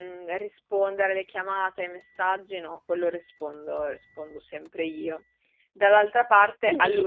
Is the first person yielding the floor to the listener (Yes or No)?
No